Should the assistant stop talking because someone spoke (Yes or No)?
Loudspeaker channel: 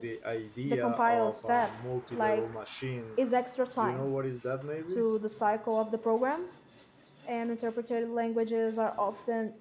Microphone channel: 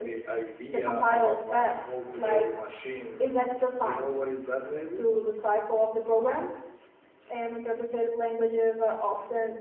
No